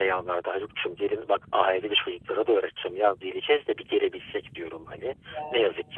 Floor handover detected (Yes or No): No